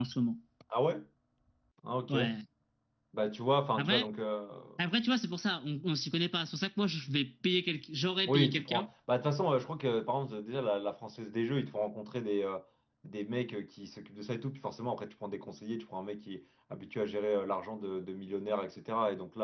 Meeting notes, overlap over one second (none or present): none